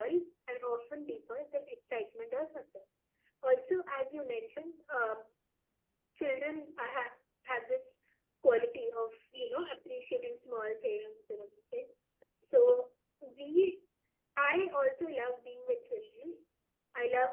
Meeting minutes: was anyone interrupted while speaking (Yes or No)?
No